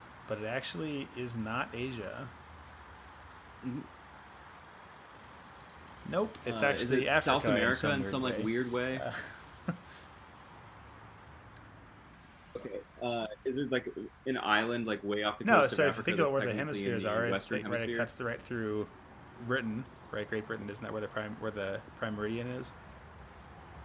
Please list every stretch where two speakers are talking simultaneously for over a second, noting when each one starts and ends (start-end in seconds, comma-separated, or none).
6.5-8.5, 15.4-18.1